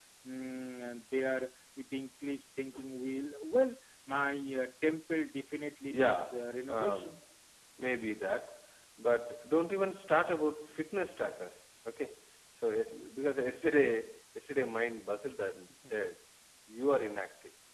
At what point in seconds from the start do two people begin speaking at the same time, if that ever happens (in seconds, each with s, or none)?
5.8 s